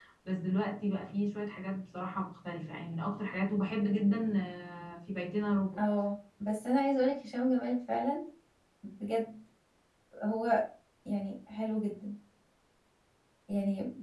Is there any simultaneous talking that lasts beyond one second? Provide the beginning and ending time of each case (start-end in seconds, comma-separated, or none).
none